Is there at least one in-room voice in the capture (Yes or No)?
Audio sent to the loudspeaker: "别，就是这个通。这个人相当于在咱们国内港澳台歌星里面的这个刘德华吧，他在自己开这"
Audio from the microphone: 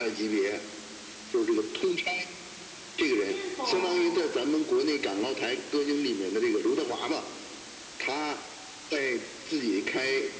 Yes